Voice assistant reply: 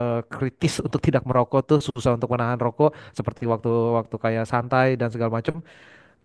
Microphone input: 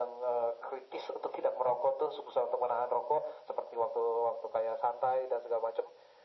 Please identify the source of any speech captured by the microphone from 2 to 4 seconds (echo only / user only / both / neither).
echo only